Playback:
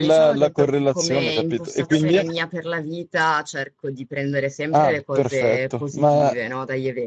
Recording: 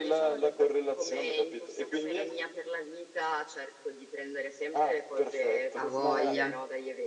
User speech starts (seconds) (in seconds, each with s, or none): 5.7 s